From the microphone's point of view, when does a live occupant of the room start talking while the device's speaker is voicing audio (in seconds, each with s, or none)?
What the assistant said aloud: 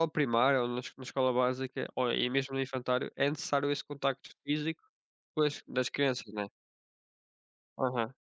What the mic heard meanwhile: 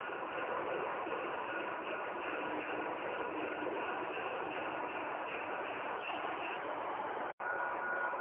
none